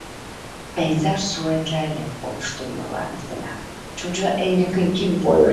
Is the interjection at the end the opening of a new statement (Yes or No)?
No